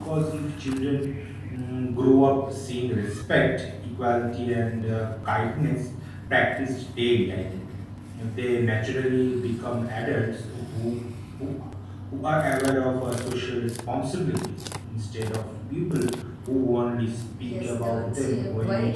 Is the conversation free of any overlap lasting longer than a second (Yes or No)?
No